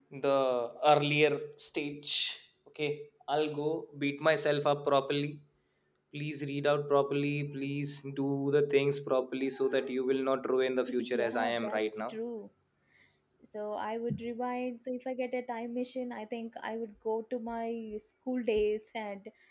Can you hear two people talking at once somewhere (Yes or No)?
Yes